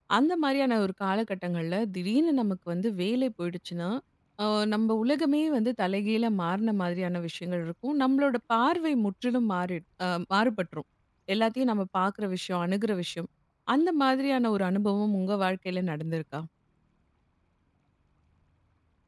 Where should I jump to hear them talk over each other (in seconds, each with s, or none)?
none